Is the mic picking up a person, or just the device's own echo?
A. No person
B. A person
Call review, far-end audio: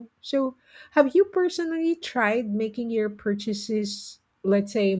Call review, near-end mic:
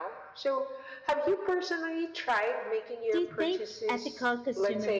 B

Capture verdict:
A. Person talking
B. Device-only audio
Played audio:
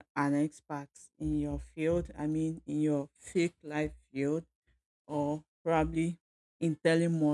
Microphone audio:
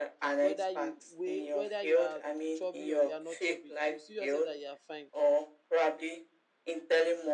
A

